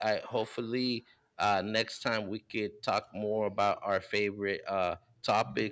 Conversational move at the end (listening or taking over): listening